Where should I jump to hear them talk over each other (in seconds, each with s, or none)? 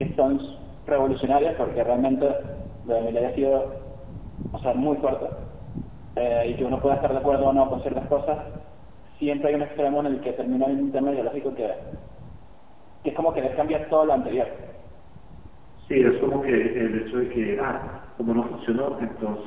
none